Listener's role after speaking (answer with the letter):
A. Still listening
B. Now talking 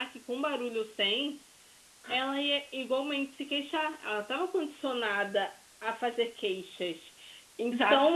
A